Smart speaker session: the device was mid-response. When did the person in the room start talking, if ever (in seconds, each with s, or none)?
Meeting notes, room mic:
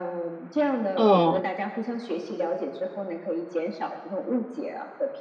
1.0 s